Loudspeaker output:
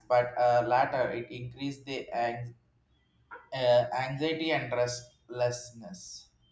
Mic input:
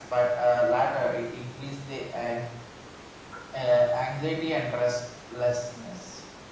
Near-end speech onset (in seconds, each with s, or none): none